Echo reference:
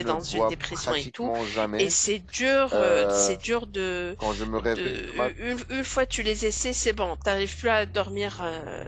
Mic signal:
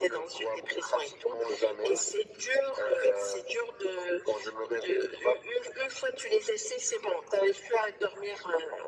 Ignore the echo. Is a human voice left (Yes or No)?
No